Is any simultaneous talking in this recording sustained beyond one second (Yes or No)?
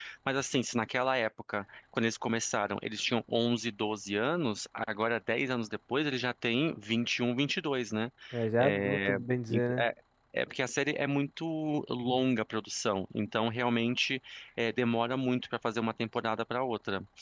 Yes